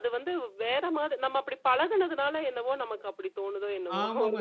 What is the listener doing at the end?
taking over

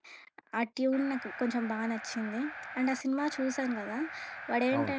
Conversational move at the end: listening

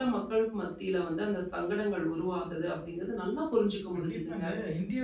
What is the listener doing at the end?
taking over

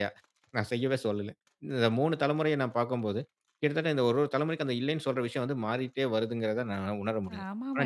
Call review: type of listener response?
taking over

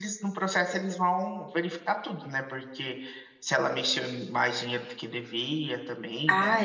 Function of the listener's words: taking over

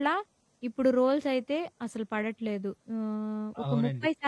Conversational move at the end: taking over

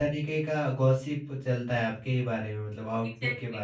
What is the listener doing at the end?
taking over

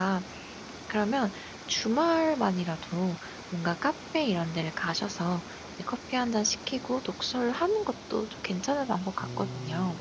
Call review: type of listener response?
taking over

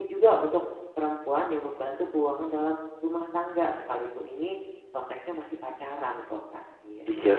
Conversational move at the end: taking over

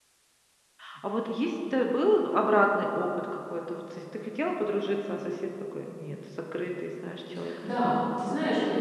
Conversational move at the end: taking over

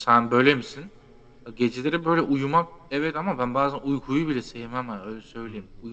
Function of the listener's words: taking over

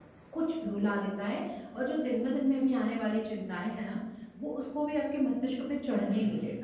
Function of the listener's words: taking over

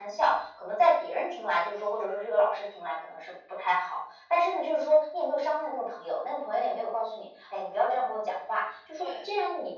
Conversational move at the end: listening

